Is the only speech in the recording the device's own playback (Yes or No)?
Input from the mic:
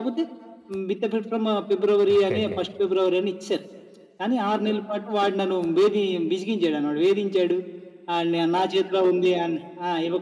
No